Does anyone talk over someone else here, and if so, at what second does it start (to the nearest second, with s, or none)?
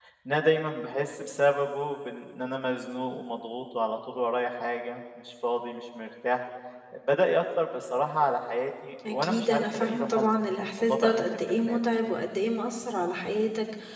9 s